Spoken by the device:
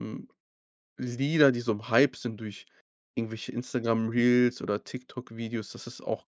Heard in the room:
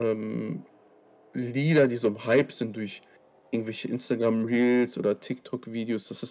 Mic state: echo only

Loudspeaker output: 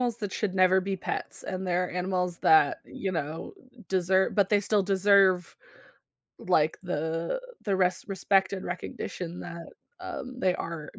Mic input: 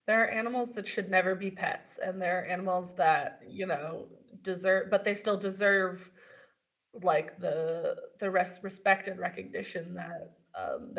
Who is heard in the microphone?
echo only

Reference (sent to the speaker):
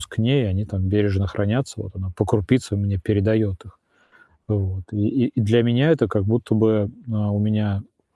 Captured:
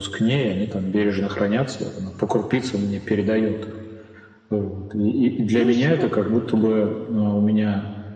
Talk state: both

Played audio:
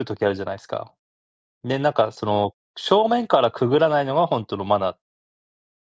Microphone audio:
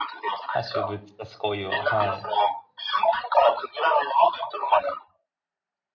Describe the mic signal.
both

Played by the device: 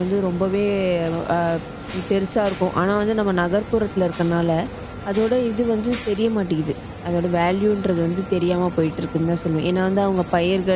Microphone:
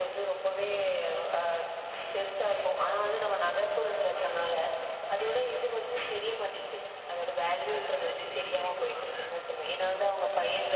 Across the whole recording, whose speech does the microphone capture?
both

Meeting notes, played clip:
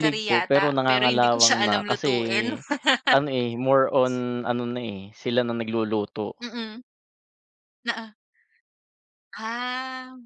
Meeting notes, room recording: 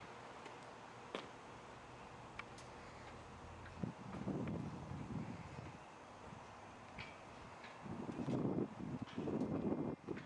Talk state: neither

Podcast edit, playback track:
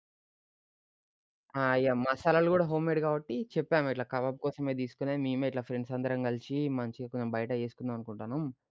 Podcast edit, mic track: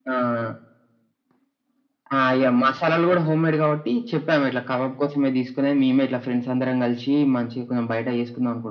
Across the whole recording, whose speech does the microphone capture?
echo only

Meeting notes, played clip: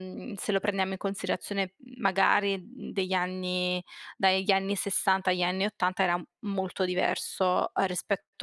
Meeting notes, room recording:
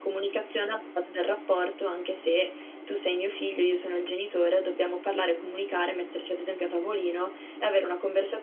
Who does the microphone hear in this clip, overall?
user only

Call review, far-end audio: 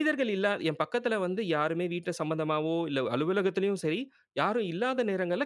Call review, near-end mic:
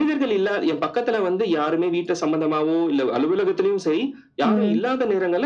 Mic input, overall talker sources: both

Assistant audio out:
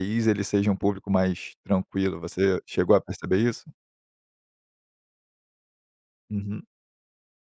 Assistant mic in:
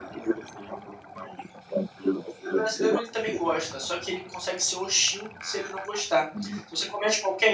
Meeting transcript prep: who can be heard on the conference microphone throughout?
both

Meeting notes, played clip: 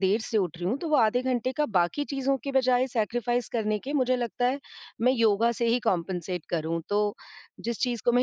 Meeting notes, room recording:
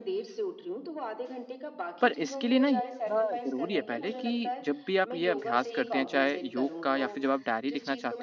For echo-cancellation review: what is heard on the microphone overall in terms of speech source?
both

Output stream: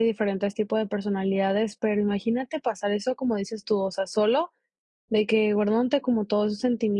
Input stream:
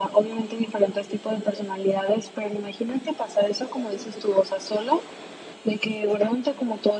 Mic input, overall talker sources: echo only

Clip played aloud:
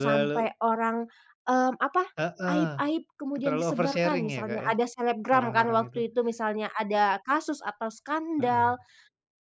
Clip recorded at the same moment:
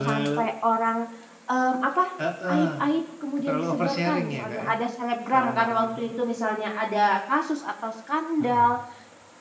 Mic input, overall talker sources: echo only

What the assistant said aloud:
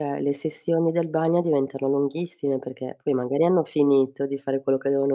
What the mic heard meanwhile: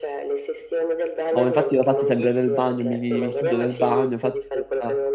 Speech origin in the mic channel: both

